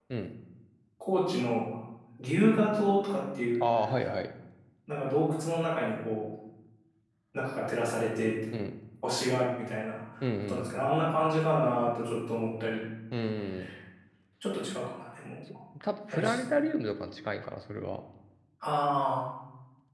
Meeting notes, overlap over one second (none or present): none